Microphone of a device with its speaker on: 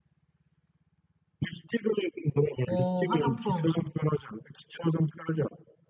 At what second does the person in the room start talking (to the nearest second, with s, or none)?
3 s